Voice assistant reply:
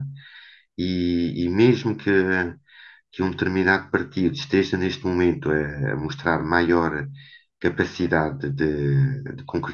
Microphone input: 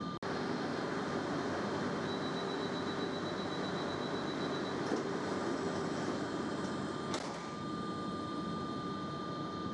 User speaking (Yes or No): No